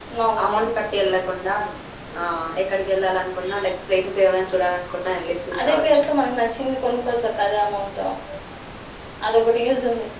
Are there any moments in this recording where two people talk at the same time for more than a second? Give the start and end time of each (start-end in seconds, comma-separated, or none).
none